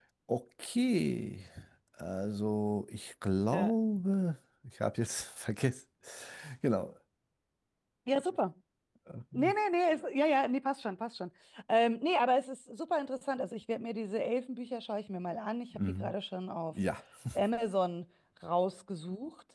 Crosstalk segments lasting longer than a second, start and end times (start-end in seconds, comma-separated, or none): none